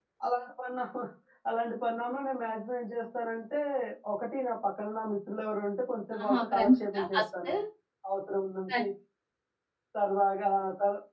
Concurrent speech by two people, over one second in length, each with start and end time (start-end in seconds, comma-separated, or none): 6.2-7.5